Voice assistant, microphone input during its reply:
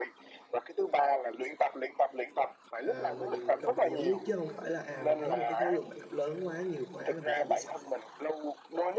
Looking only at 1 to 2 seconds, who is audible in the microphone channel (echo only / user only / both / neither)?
echo only